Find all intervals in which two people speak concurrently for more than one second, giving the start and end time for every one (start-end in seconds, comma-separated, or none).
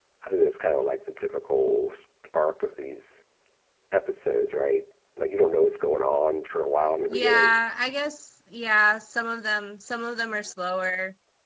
none